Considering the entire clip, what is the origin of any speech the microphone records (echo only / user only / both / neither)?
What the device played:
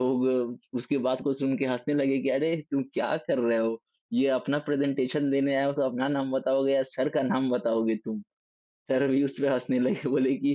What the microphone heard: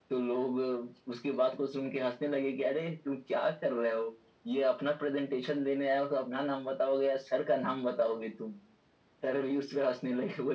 echo only